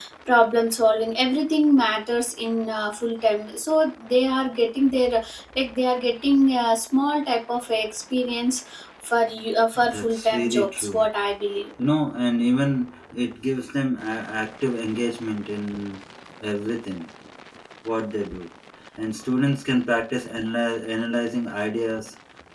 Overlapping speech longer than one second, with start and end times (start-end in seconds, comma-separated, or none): 9.9-11.1